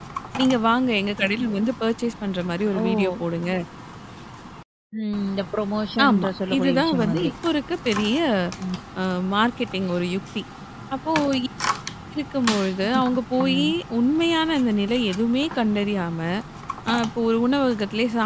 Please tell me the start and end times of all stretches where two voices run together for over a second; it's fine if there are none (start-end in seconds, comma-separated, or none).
6.1-7.3